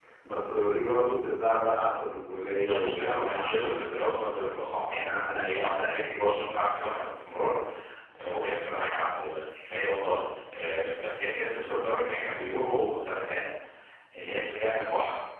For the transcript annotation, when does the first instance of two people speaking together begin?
3 s

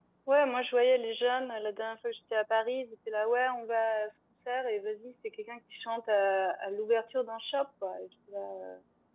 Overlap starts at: none

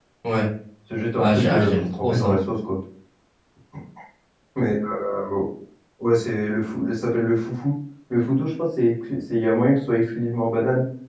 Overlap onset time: 1 s

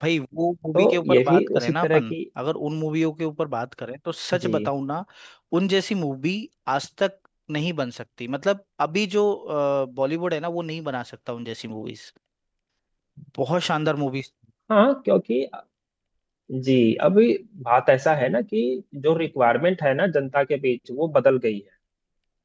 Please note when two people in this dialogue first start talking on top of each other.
1 s

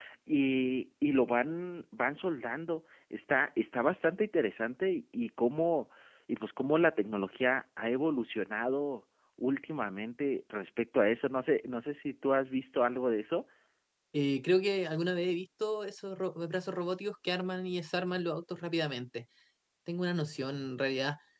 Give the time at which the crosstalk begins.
none

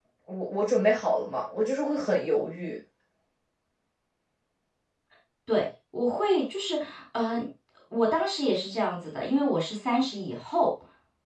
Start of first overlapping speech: none

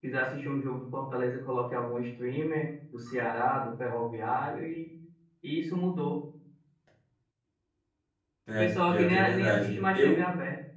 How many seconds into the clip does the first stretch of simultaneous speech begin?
9 s

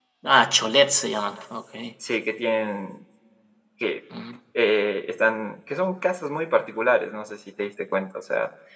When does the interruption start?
none

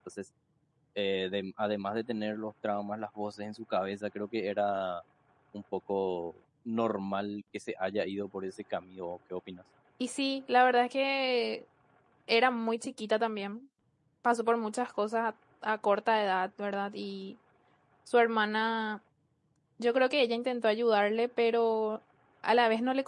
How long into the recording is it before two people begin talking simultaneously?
none

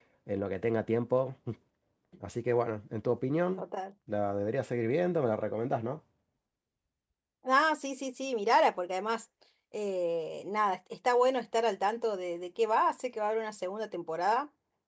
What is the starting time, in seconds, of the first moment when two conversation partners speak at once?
none

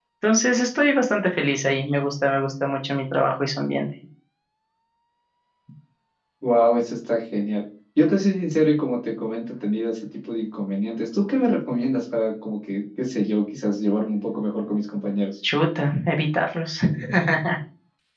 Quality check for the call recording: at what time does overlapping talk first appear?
none

